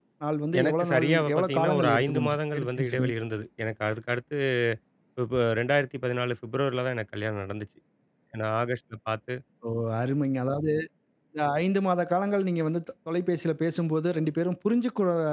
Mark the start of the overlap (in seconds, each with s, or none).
0.6 s